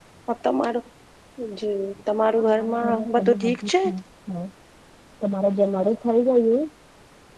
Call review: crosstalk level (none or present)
present